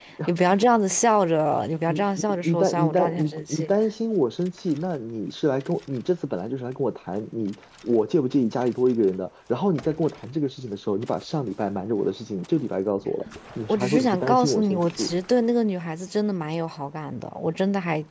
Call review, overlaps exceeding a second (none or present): present